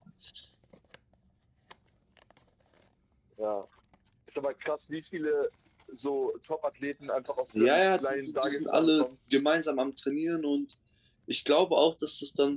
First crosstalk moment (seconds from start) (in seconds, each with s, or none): 7.6 s